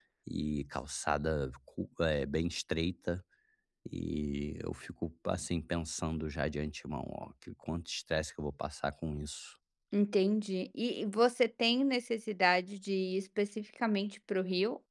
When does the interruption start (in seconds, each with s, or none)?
none